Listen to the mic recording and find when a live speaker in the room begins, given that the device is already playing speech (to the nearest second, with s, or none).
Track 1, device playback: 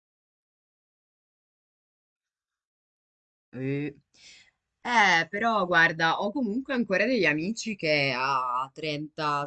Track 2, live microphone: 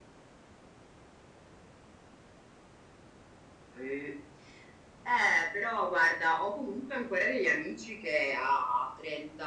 none